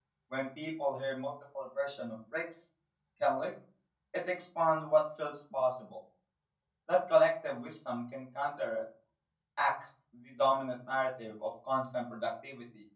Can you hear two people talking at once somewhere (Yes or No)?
No